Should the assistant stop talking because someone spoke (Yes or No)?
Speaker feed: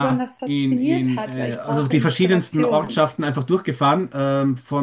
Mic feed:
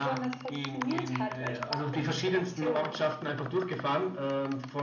No